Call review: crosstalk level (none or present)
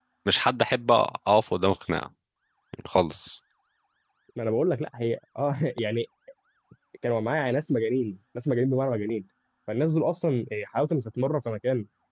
none